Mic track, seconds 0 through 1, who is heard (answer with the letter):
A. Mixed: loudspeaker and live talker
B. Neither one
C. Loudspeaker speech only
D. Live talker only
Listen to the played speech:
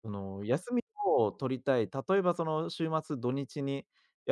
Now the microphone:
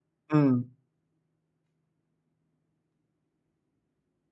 D